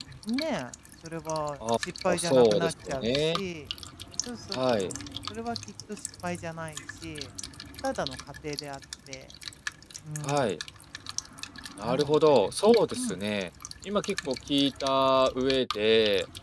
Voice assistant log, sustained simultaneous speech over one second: present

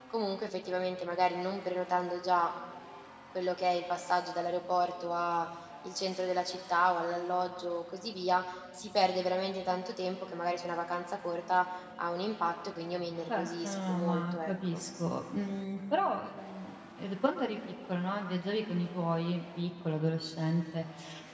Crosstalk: present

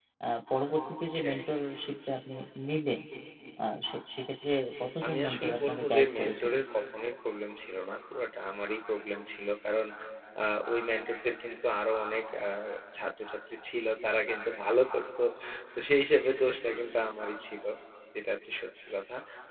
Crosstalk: present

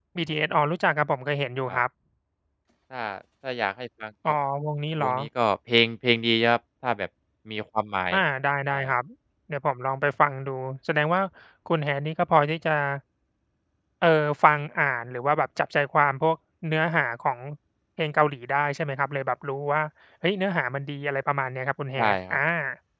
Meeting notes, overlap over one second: none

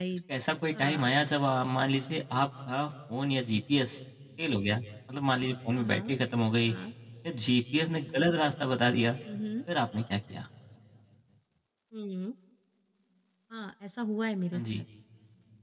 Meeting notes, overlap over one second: none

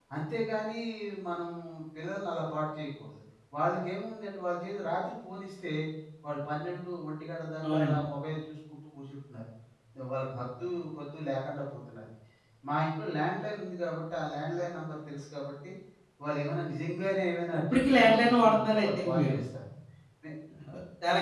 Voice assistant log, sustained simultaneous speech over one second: present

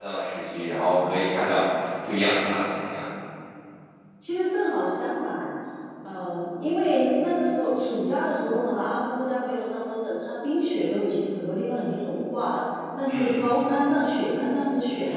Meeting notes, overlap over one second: none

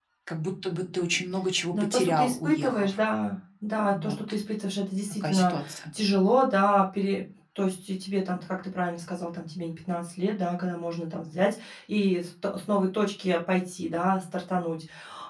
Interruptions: present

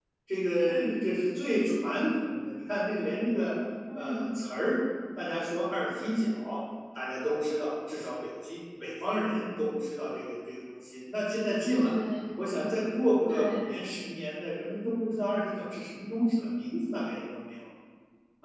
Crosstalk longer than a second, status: none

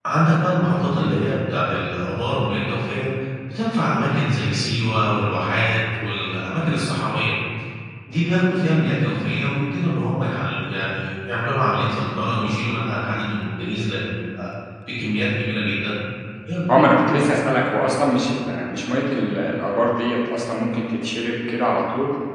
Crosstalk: none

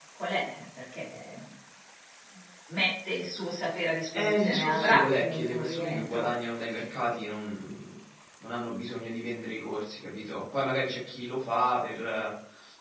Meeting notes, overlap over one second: present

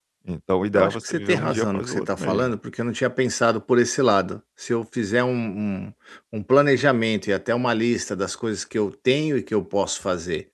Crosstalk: present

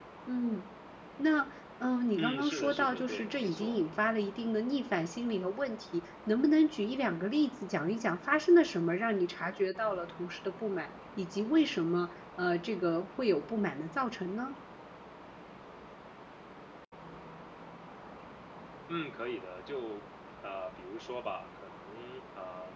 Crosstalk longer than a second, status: present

